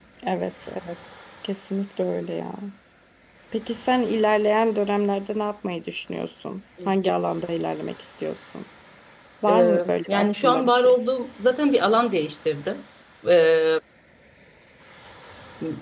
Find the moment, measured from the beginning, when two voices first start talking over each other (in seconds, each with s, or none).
9.5 s